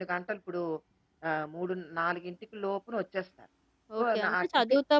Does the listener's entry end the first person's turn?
Yes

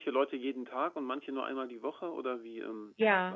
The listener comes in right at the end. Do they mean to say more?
Yes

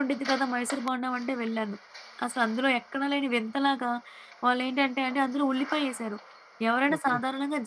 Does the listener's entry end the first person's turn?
No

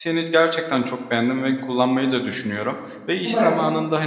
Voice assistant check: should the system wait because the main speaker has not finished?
Yes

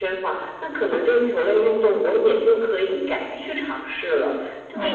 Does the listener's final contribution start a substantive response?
Yes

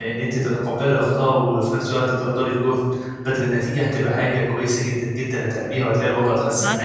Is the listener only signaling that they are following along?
No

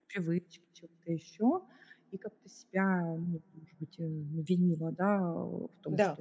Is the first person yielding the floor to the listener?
No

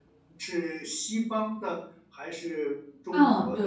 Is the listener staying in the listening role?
No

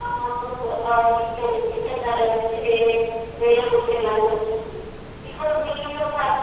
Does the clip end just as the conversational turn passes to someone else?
No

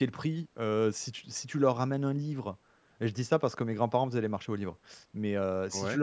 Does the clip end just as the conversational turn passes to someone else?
No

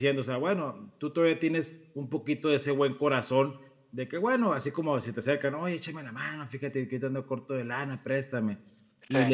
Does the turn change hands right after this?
No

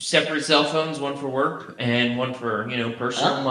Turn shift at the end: Yes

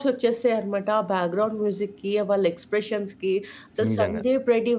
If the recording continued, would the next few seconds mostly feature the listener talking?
No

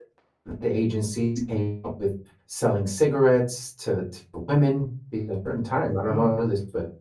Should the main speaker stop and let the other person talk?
No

